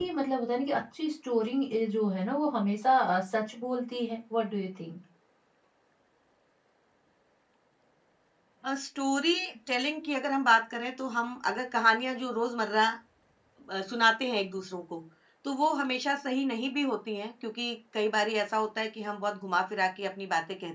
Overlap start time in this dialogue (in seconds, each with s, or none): none